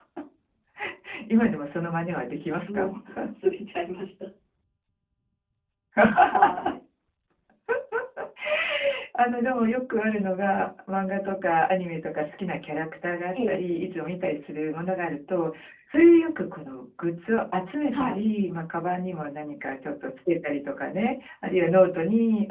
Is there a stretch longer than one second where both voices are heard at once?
No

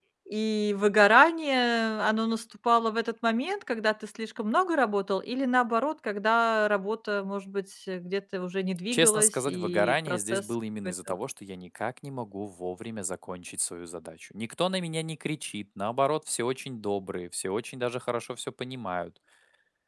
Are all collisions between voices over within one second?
No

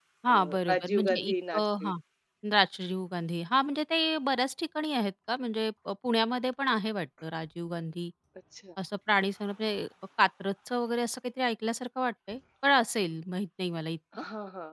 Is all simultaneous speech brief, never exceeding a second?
No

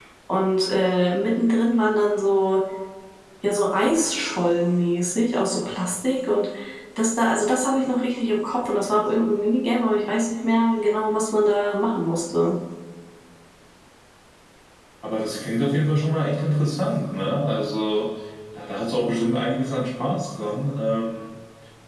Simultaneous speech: No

